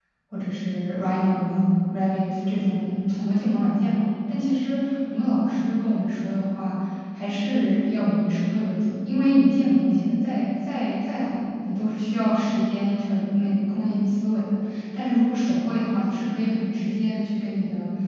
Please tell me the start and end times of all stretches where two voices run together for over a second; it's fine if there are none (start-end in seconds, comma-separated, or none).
none